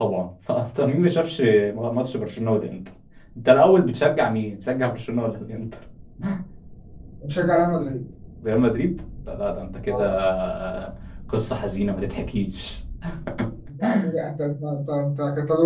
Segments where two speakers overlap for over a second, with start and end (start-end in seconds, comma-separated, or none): none